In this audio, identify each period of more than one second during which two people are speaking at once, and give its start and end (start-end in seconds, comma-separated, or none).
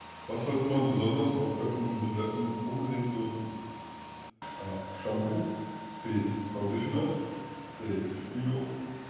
none